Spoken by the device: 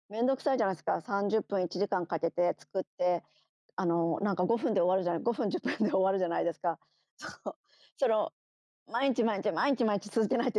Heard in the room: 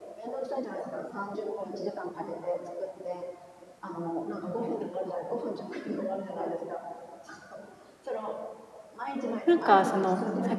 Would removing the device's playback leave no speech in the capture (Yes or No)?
No